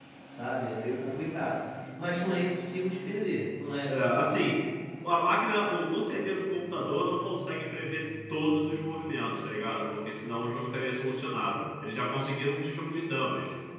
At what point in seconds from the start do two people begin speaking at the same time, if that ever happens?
none

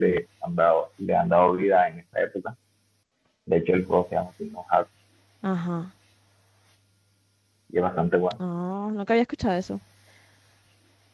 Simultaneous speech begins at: none

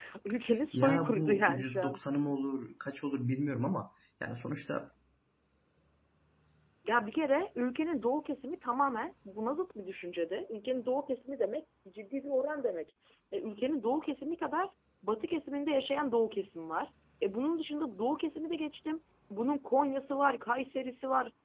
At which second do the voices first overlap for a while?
0.7 s

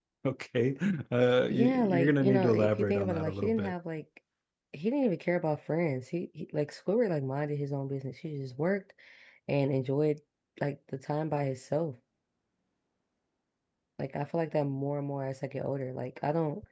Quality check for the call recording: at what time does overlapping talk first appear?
1.5 s

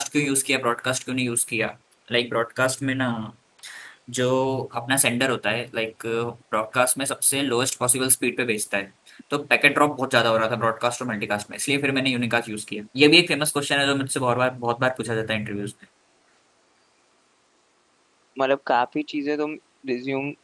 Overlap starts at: none

